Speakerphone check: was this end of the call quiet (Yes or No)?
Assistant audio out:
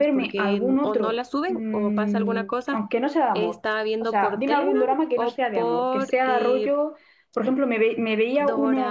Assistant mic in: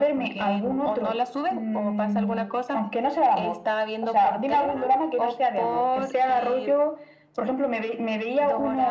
Yes